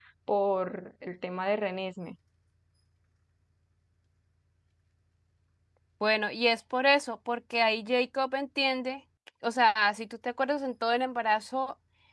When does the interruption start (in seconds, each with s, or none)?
none